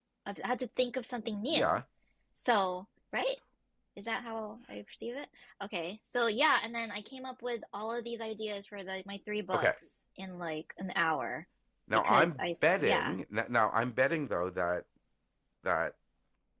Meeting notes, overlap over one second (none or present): present